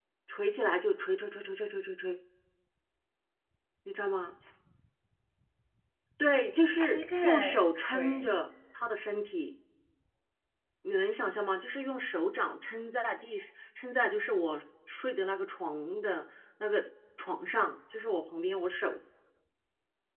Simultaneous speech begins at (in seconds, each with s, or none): 6.7 s